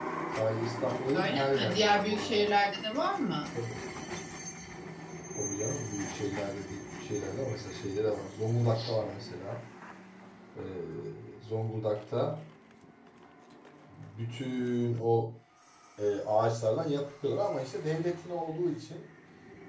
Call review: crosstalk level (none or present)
present